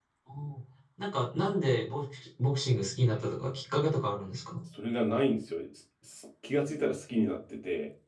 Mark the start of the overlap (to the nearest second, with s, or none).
none